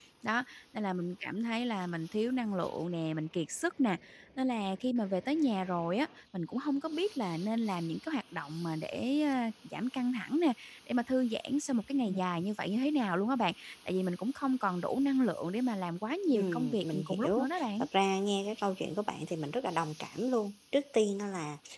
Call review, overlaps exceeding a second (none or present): present